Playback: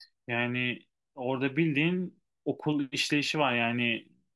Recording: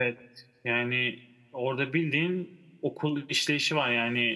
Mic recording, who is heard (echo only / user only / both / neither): echo only